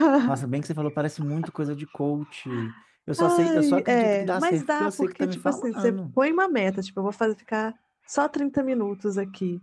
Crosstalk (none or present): present